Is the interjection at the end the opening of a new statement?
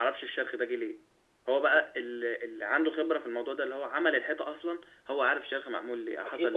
Yes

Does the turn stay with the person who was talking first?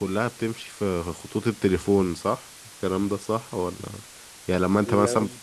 Yes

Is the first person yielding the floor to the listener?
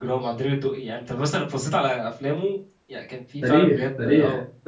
Yes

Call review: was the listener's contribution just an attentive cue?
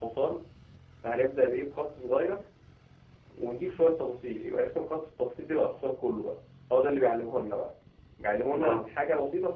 Yes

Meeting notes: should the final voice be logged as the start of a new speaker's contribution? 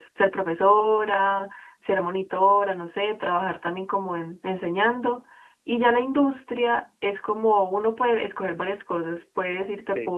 No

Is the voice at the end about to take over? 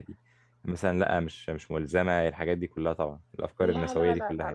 Yes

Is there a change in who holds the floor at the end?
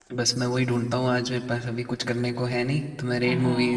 Yes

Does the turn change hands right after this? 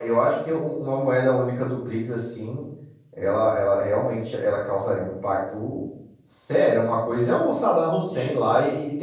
No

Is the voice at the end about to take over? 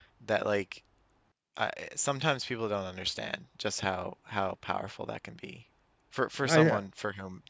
No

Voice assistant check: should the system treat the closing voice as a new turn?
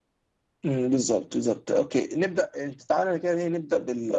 No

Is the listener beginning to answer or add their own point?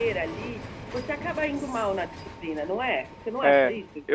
Yes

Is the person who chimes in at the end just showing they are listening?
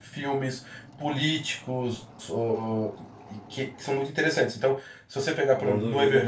Yes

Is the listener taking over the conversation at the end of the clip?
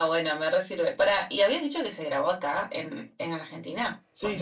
Yes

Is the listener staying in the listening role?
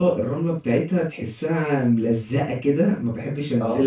Yes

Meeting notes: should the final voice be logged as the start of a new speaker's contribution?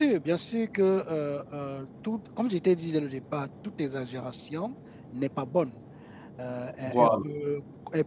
No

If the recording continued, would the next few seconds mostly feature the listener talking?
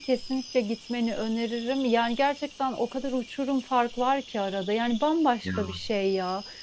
No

